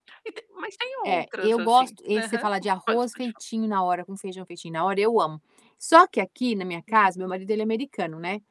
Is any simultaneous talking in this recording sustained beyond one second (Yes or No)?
Yes